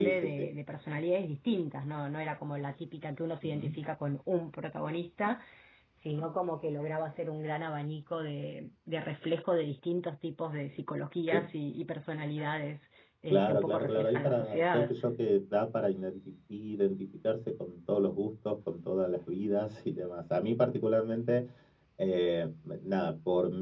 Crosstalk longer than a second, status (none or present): present